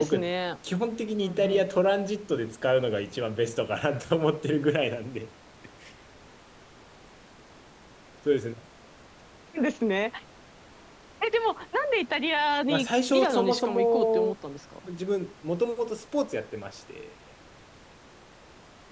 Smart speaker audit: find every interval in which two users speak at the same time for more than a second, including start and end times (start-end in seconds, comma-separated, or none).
12.7-14.3